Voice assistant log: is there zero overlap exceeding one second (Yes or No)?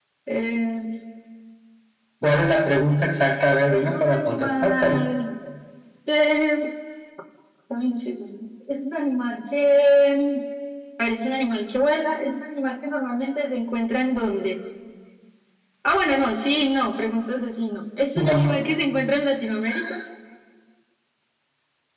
No